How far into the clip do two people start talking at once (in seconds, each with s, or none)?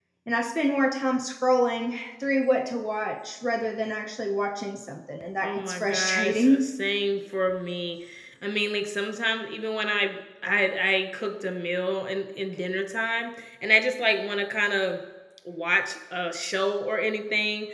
5.4 s